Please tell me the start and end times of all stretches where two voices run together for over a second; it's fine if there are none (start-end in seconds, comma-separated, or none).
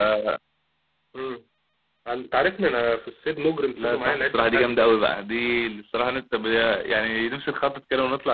3.8-5.0